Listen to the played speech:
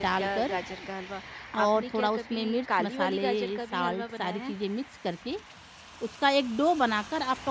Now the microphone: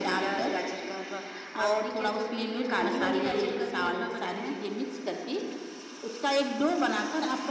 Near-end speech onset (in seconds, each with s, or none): none